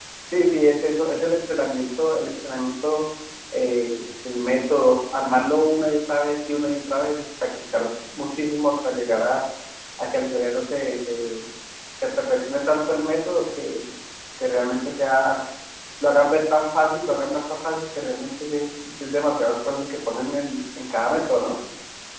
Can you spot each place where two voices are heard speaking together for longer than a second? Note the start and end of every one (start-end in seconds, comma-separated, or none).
none